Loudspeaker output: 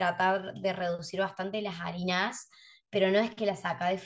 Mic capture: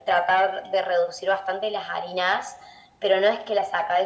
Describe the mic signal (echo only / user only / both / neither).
echo only